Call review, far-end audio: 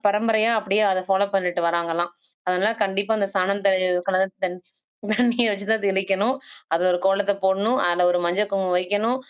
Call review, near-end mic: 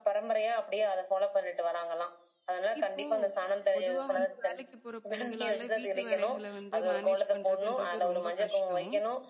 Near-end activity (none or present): present